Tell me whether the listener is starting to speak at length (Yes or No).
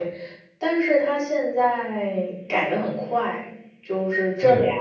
No